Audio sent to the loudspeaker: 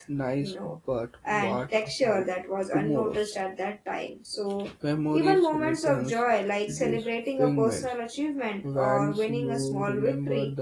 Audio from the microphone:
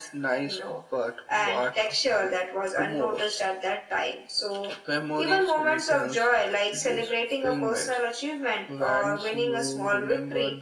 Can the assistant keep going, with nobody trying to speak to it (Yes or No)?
Yes